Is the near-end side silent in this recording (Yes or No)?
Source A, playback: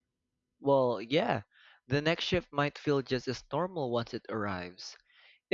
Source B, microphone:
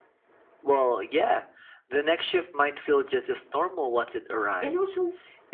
No